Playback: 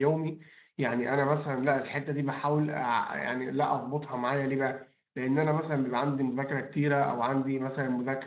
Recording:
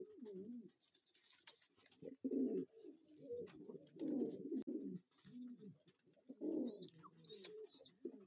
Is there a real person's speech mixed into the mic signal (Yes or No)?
No